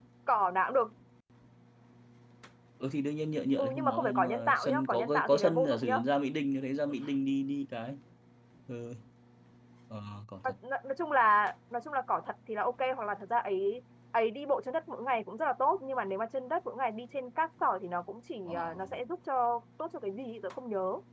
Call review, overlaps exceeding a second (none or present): present